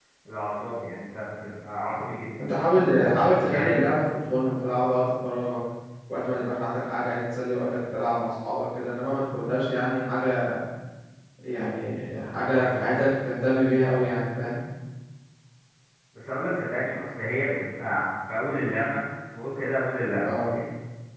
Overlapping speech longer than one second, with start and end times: none

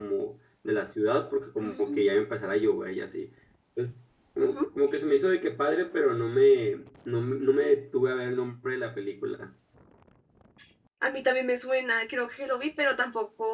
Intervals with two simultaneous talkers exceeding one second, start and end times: none

